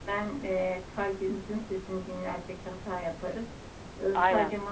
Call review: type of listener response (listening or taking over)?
listening